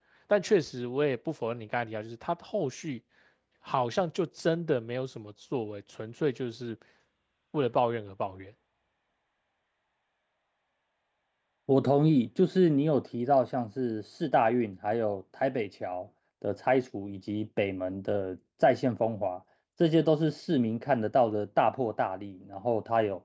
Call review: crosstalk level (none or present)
none